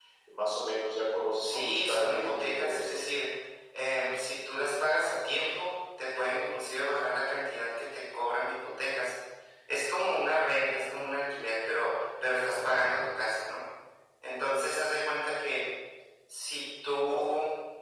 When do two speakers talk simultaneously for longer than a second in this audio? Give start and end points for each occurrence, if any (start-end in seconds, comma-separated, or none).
1.4-2.9